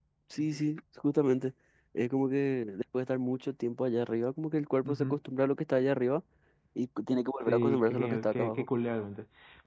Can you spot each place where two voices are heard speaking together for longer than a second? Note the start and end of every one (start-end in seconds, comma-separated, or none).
7.4-8.7